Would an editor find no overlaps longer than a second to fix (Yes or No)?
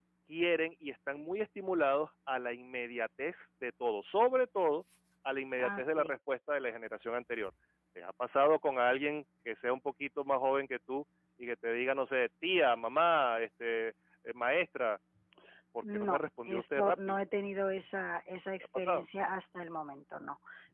No